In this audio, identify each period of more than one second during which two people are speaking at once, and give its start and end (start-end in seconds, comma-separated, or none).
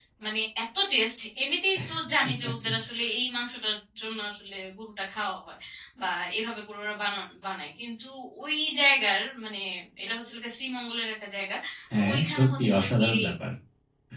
11.9-13.2